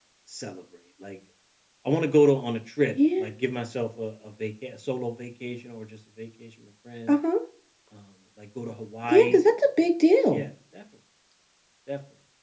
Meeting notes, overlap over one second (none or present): none